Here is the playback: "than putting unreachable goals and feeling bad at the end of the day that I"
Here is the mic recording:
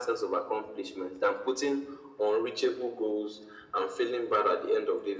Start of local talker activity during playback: none

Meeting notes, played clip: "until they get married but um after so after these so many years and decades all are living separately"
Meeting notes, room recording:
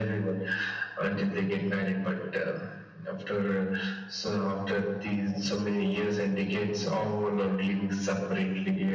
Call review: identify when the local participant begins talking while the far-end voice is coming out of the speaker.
none

